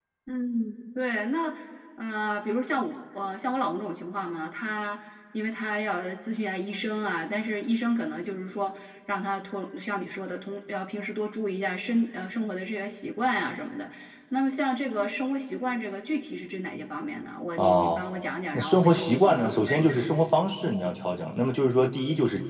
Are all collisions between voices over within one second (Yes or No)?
No